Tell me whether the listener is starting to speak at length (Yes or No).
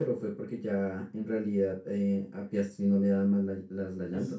Yes